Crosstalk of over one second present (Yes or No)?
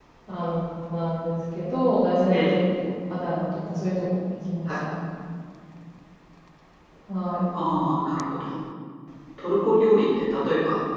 No